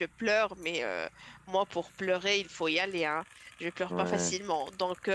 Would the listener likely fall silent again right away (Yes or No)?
Yes